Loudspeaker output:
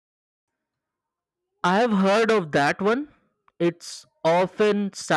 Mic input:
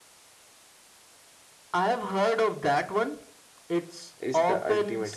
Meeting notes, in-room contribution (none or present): present